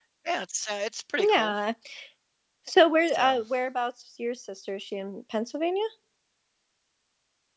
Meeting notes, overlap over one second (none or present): none